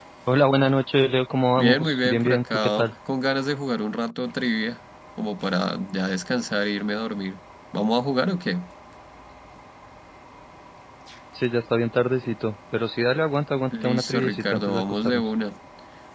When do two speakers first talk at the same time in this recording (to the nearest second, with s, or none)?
2 s